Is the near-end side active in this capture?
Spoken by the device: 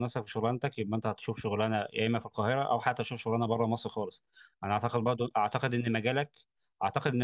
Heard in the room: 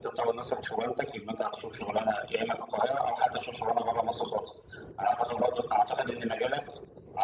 No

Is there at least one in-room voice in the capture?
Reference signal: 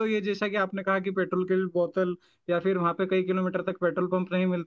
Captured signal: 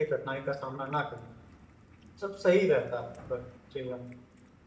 Yes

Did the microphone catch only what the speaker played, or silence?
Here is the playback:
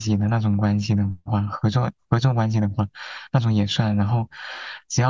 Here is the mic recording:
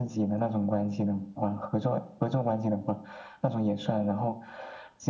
Yes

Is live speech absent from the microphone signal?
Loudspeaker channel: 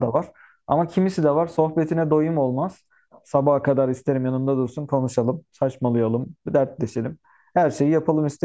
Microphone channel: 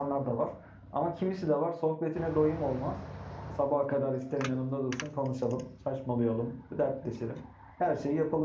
Yes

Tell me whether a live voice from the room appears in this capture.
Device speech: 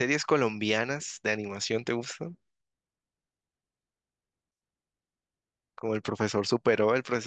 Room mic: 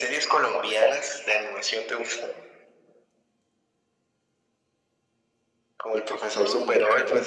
Yes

